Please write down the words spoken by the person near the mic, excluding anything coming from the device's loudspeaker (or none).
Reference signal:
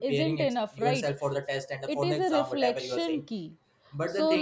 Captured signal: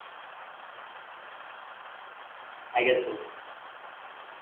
I guess so.